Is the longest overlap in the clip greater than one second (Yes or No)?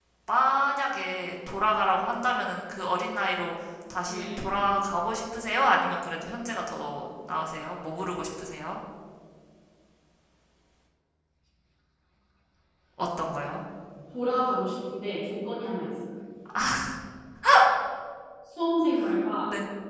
No